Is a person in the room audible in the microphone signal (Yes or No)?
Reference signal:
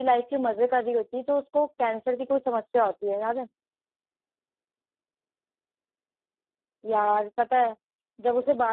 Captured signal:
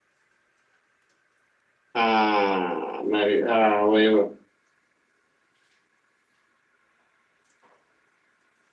Yes